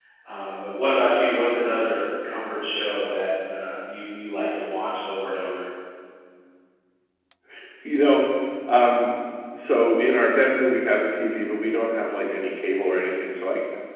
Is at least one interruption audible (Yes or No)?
No